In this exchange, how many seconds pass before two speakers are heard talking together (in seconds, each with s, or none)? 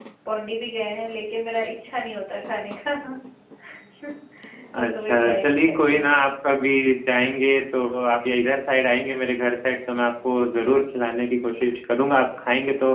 4.8 s